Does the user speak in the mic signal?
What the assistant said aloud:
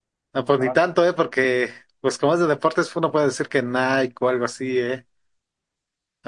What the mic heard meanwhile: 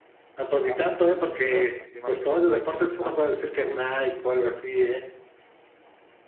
Yes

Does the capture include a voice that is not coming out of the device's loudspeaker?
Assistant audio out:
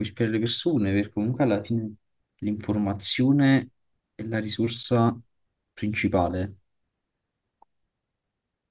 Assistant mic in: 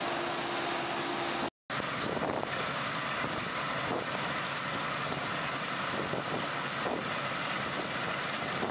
No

